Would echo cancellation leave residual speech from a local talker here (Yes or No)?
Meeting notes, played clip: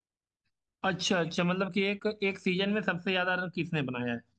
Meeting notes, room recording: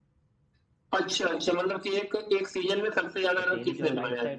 Yes